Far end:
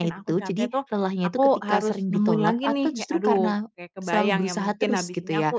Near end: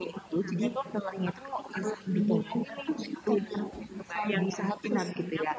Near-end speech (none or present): none